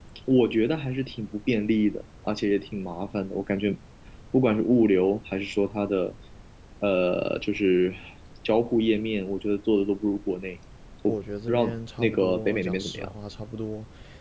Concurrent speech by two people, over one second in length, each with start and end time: 11.5-13.1

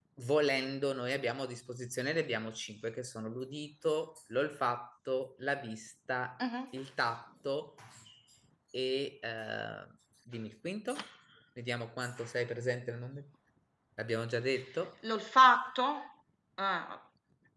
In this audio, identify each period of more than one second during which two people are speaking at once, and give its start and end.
none

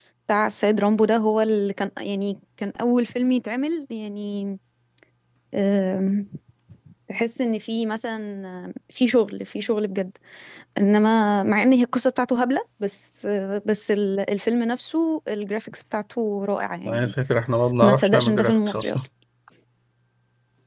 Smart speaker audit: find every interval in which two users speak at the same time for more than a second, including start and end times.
17.8-19.0

